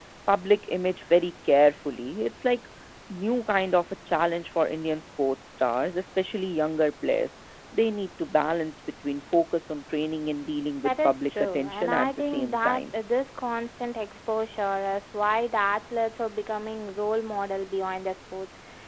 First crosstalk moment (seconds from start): 11 s

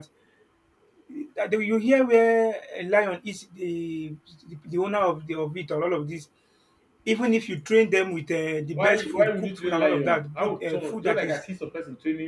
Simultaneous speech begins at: 9 s

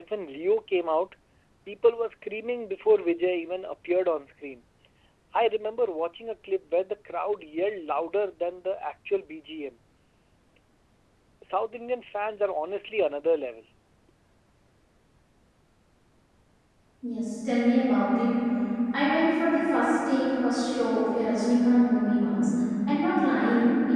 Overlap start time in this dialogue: none

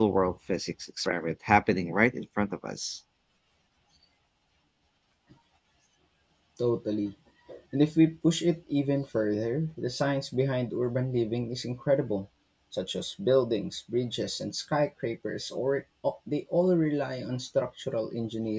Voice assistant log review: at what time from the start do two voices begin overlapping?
none

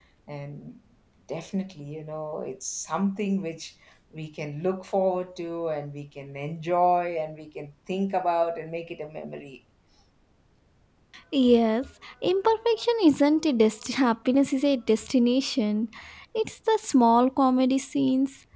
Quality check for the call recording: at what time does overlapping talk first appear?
none

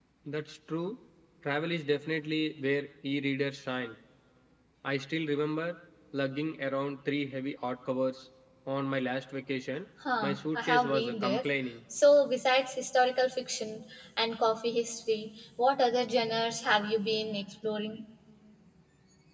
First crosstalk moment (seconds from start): 10 s

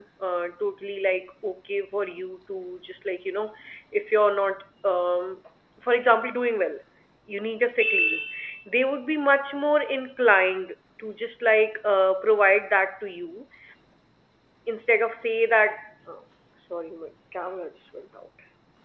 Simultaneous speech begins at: none

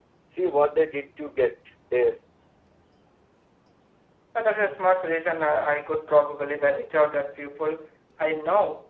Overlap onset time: none

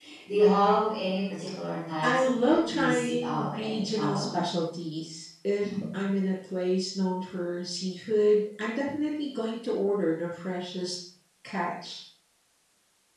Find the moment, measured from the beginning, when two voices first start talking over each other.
2 s

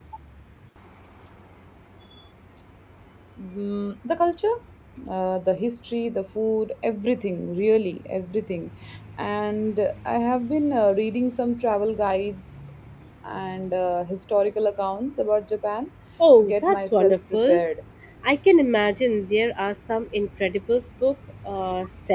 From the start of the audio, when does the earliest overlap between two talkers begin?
16 s

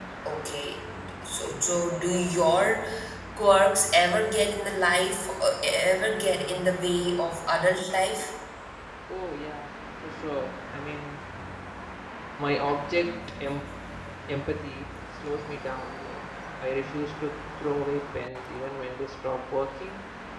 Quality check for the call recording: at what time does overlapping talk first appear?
none

